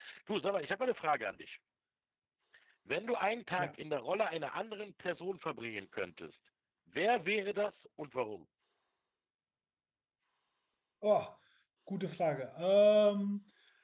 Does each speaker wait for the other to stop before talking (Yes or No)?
Yes